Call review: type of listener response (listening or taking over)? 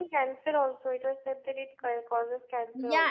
taking over